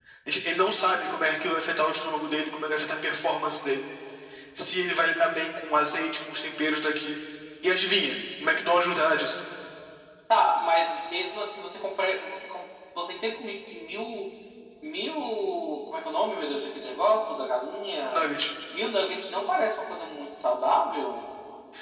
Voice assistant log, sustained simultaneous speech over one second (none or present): none